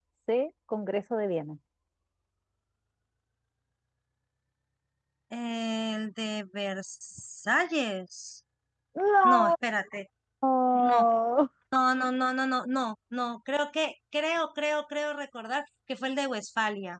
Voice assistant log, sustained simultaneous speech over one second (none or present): none